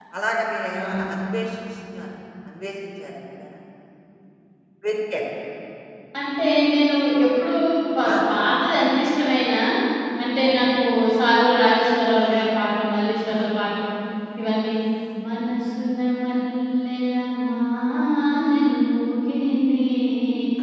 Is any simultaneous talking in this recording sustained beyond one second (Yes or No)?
No